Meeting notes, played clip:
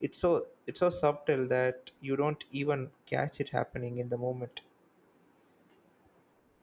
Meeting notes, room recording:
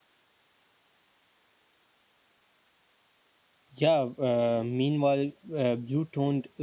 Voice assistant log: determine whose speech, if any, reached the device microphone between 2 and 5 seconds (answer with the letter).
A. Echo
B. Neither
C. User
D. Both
C